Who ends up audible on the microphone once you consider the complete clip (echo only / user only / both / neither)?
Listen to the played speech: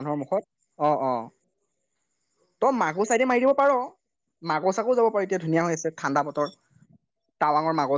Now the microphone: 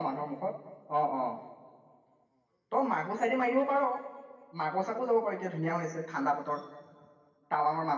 echo only